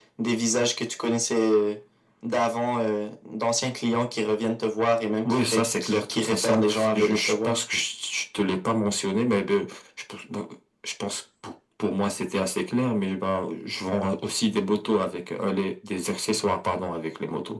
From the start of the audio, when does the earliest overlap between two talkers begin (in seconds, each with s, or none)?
5.2 s